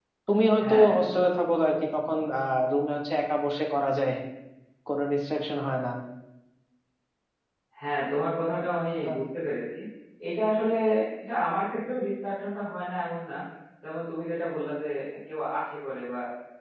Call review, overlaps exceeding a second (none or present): none